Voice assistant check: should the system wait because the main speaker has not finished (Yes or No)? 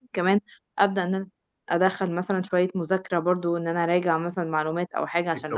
Yes